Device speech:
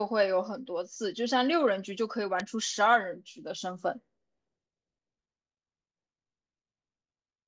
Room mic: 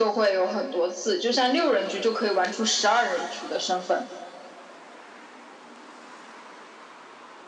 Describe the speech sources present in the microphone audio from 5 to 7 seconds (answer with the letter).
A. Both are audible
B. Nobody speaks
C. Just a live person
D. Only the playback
B